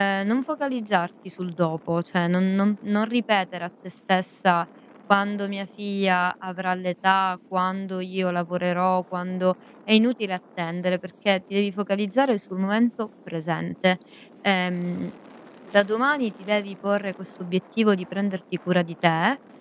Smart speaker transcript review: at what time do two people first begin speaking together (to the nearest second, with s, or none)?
none